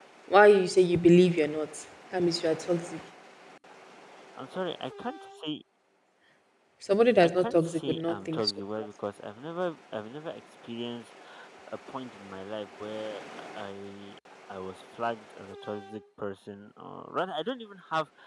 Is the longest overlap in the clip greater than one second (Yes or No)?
Yes